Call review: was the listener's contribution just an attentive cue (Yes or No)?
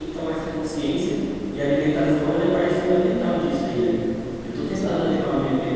Yes